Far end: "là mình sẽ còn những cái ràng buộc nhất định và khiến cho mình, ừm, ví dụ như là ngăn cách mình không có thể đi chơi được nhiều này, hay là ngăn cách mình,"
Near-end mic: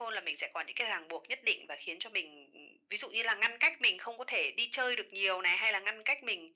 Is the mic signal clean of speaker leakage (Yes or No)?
No